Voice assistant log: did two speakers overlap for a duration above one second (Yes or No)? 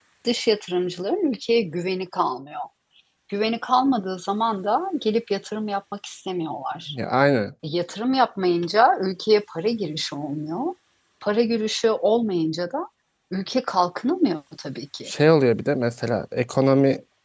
No